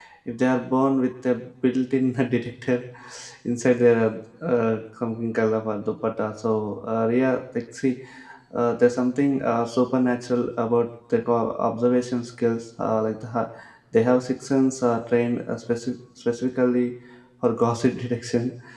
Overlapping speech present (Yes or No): No